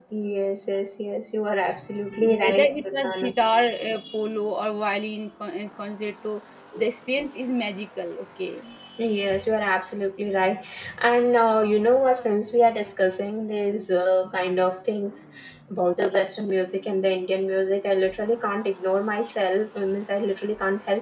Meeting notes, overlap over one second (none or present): present